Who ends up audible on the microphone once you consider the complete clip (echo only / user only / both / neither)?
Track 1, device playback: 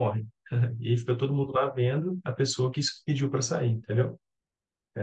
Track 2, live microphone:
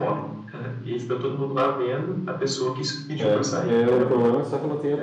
both